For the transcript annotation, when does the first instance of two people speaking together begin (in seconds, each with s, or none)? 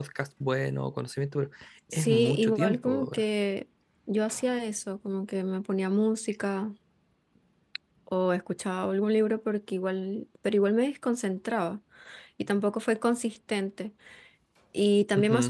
1.9 s